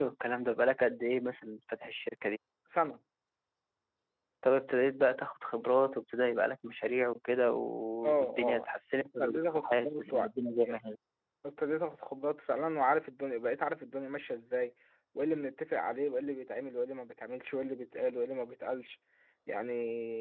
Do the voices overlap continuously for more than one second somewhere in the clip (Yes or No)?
Yes